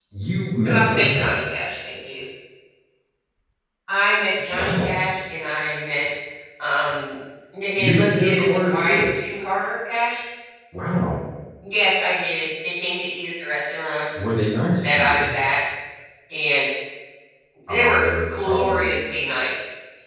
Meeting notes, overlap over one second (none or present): present